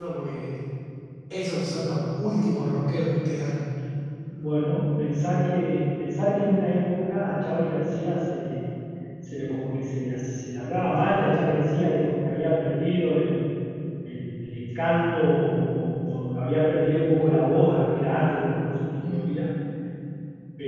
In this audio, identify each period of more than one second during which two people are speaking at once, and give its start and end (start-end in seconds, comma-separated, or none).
none